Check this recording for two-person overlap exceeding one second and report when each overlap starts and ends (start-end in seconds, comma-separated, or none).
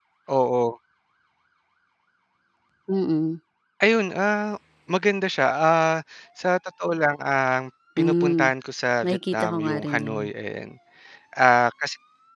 9.0-10.2